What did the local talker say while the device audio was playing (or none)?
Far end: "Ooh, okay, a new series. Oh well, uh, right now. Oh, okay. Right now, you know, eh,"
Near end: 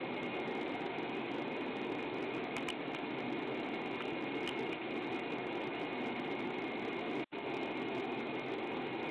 none